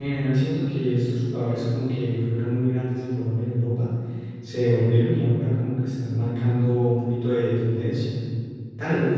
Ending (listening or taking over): listening